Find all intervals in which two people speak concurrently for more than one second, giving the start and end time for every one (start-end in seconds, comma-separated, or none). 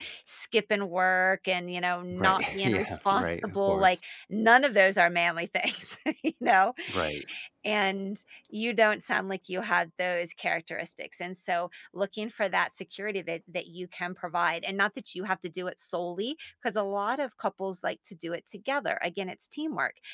2.1-4.0